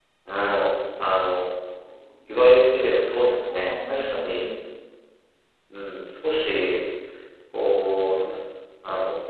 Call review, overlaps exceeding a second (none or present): present